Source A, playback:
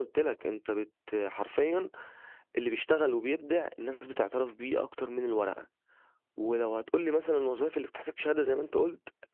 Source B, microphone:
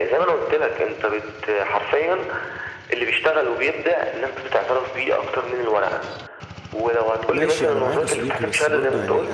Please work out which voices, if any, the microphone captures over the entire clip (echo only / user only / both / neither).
both